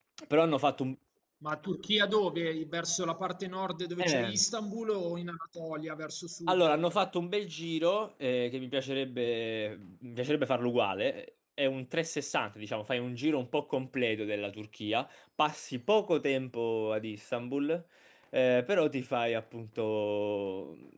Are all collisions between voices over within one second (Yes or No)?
Yes